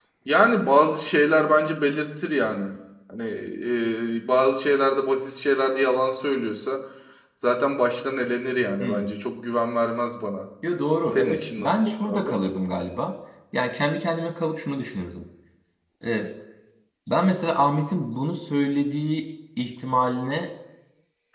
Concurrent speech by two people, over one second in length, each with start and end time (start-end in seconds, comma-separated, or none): 11.2-12.4